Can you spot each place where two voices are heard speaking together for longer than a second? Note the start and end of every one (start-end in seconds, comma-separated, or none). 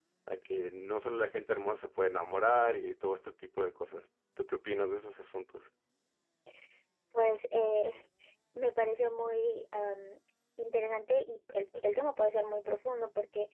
none